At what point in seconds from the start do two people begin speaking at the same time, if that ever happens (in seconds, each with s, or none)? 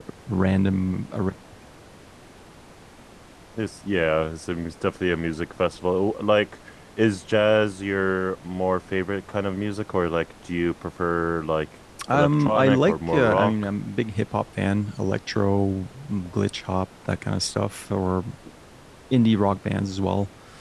12.0 s